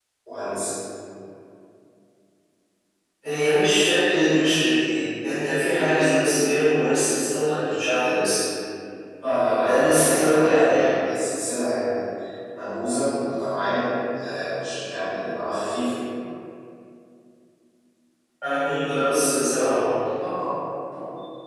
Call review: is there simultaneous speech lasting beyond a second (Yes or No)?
Yes